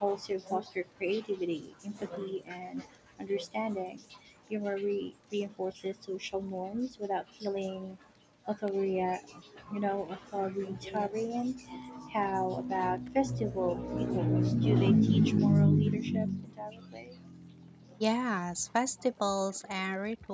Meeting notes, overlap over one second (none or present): none